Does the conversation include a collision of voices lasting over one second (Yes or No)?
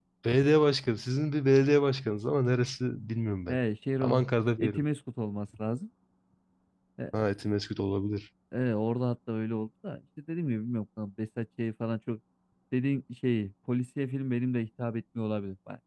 No